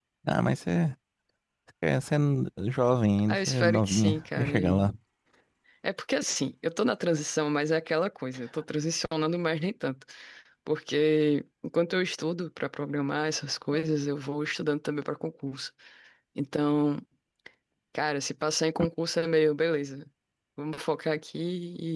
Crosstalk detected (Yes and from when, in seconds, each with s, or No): Yes, from 3.3 s